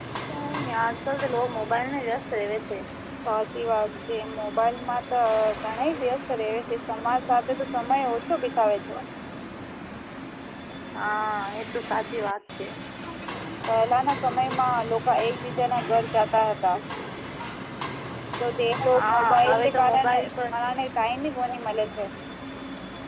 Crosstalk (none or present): present